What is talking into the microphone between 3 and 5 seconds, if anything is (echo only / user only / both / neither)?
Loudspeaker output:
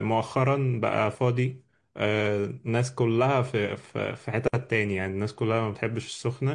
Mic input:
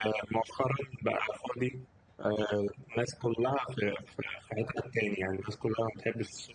echo only